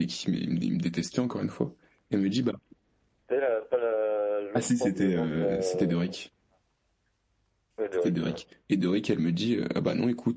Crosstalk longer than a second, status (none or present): present